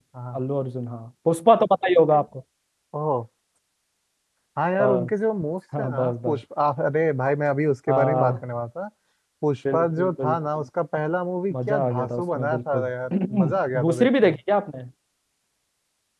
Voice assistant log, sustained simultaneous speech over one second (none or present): present